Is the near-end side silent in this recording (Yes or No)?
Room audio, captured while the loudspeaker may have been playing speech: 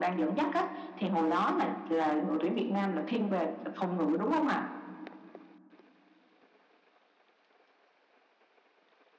Yes